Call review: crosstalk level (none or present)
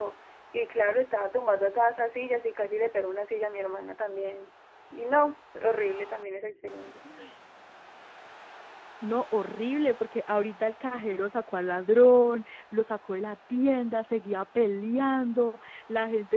none